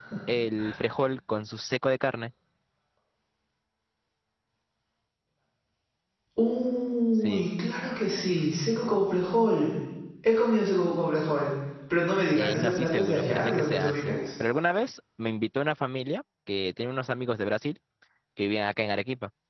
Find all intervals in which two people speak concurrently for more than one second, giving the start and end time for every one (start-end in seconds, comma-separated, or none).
12.3-14.2